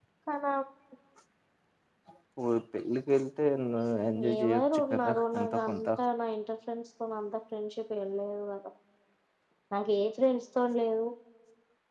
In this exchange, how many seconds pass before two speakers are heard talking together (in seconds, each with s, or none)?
4.4 s